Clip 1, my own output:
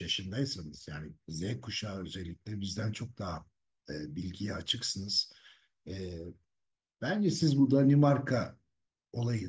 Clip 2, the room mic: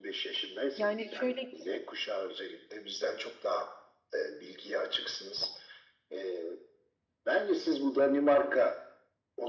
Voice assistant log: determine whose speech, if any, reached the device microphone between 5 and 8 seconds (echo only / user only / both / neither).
echo only